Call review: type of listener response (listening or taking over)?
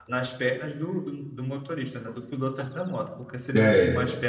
listening